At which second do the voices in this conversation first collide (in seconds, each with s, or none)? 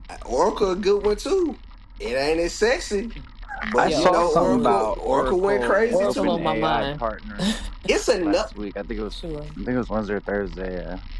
3.8 s